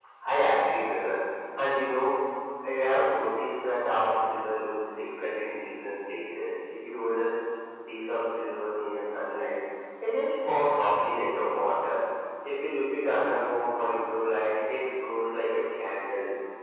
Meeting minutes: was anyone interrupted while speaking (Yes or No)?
No